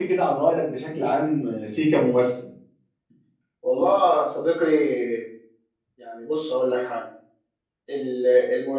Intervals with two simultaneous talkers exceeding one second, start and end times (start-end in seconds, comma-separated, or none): none